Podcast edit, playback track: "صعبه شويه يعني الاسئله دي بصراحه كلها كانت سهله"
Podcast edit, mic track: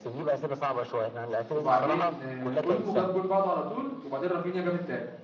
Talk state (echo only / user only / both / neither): both